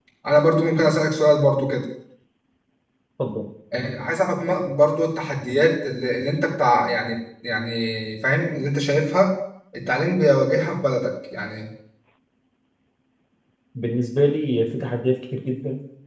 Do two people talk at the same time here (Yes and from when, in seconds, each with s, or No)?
No